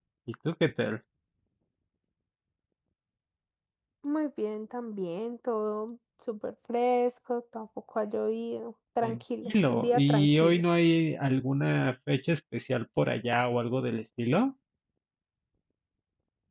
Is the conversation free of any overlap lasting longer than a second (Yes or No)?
No